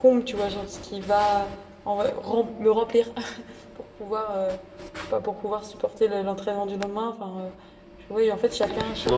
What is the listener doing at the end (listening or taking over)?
taking over